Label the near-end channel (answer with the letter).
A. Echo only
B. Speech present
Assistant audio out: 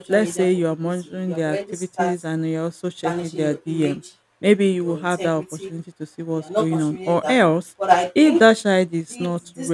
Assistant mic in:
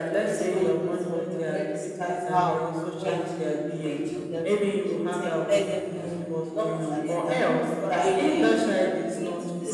B